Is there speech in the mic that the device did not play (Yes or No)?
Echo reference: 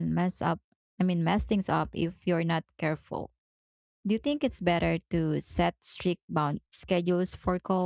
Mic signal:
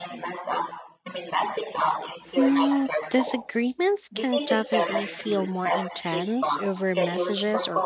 Yes